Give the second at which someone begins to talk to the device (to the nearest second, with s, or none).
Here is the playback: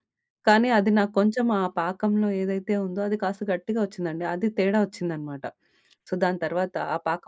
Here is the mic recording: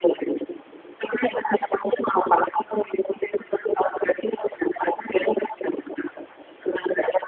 none